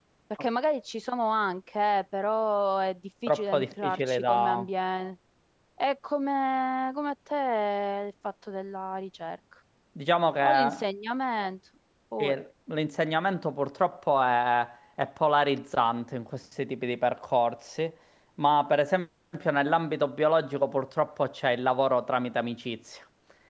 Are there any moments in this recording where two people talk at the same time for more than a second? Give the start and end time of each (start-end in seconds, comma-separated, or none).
3.3-4.7